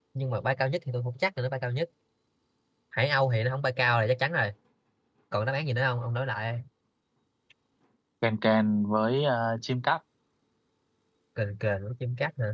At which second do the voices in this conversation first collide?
none

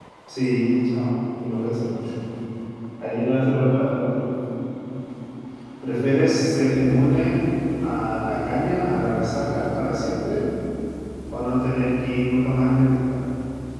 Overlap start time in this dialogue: none

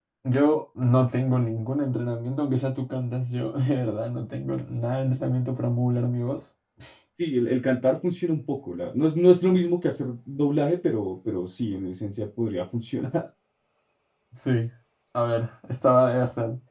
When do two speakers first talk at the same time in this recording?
none

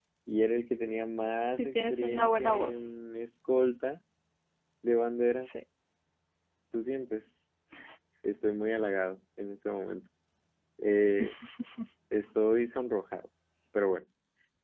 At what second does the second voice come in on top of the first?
1.6 s

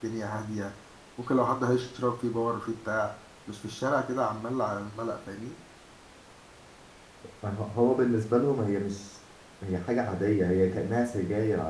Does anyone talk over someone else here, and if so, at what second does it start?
none

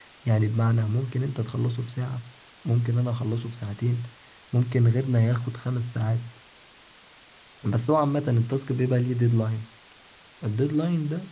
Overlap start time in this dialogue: none

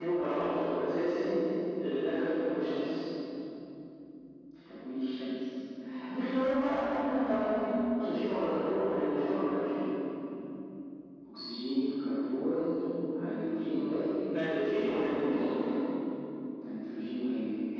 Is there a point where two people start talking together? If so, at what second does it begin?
none

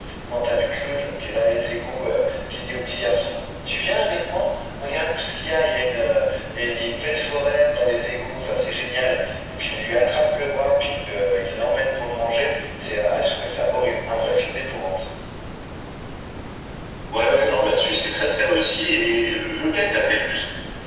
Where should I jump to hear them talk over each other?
none

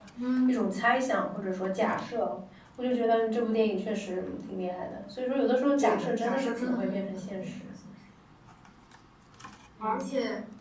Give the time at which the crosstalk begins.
5.8 s

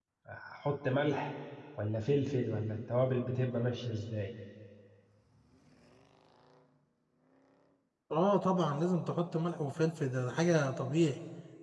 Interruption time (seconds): none

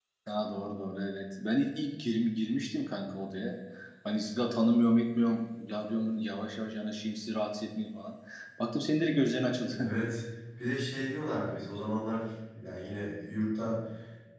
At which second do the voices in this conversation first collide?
none

